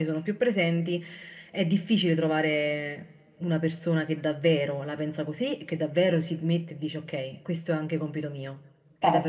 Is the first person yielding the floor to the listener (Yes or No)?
Yes